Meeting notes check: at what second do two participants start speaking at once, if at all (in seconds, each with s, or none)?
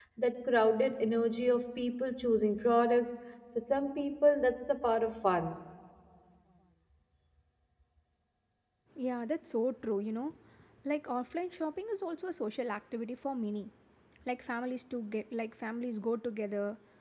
none